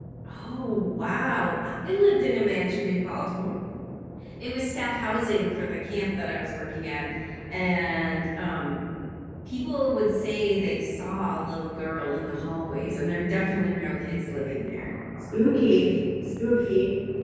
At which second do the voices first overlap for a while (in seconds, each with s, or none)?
none